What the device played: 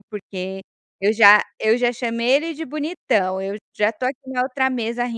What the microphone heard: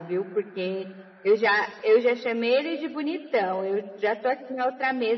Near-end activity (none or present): none